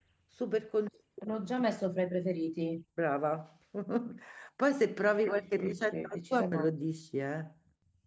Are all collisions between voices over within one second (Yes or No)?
No